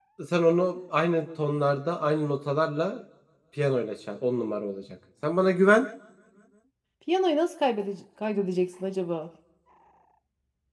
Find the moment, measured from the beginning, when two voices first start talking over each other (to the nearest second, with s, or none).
none